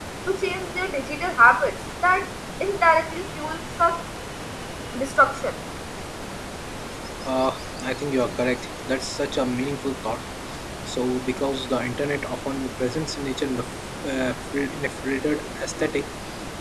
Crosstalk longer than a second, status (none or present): none